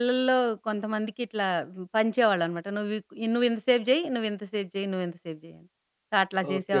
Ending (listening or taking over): listening